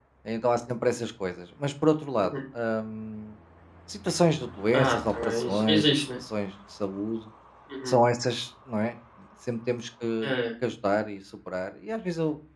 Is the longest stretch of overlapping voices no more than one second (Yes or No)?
No